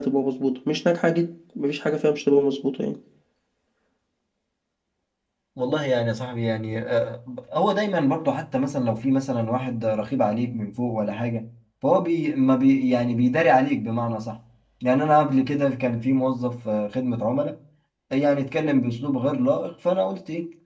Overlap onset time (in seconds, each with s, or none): none